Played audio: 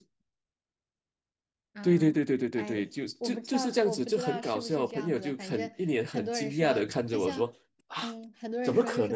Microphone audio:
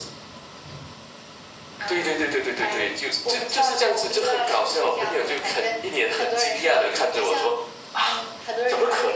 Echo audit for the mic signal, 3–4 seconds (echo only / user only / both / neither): echo only